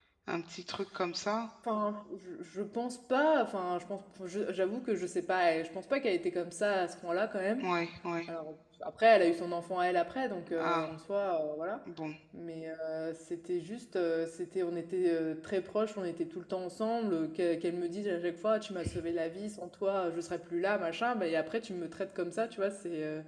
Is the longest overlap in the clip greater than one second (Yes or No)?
No